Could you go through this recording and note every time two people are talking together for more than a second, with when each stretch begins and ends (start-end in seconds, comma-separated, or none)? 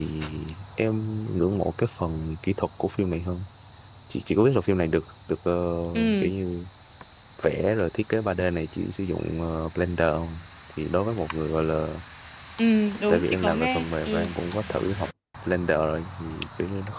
13.1-14.3